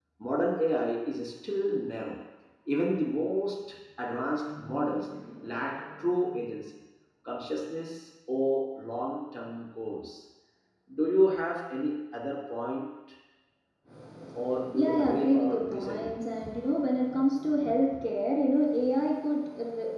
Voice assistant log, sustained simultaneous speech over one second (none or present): present